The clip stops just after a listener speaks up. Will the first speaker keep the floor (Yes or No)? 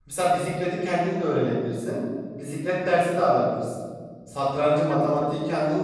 Yes